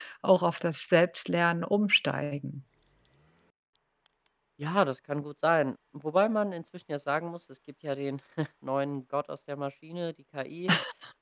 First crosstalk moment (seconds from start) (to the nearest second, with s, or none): none